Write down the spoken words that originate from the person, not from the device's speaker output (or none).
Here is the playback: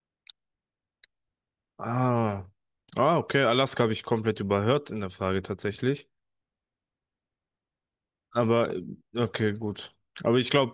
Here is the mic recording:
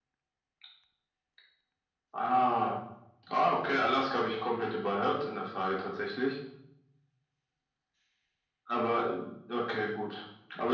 none